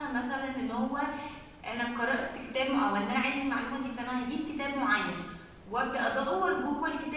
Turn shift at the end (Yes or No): No